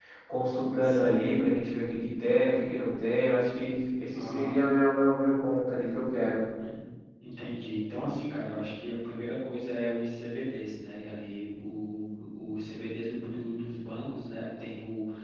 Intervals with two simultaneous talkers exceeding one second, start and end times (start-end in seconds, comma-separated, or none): none